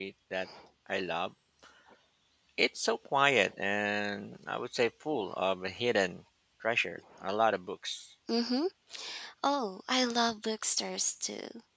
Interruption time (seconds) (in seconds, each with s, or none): none